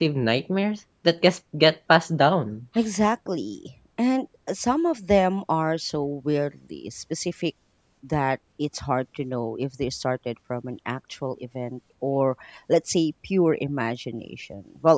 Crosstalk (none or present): none